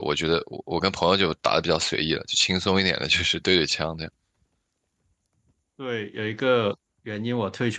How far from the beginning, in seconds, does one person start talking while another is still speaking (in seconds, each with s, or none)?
none